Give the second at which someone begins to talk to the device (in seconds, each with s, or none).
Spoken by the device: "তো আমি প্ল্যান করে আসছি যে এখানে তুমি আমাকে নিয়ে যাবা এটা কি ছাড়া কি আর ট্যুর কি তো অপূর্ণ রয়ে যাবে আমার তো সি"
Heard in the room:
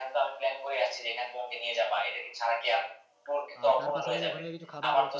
3.6 s